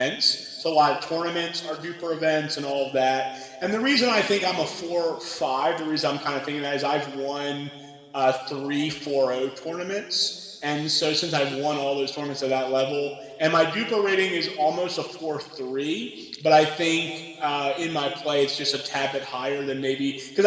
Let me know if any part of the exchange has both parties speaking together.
No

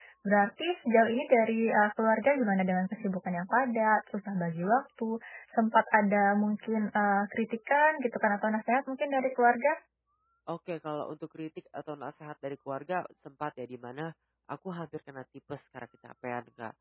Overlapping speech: No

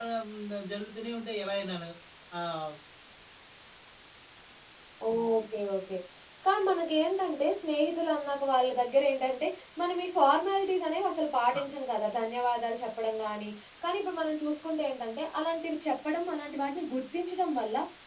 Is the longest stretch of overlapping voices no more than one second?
Yes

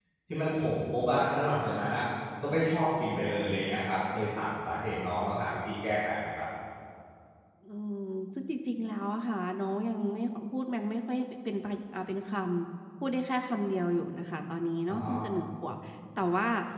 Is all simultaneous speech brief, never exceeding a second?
Yes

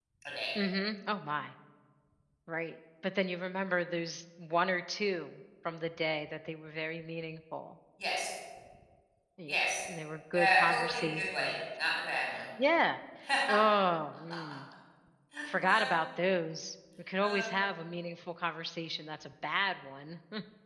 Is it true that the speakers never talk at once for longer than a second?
No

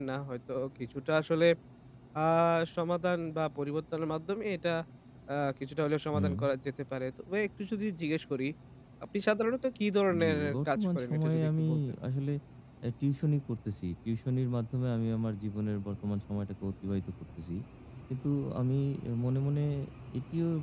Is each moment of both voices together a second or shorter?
No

